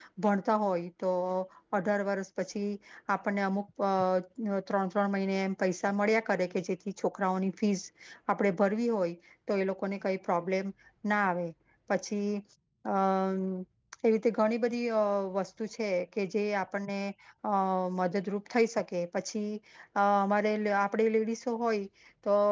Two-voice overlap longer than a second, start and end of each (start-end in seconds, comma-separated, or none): none